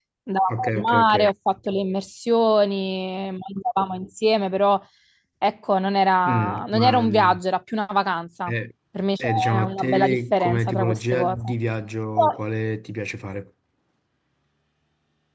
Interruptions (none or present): present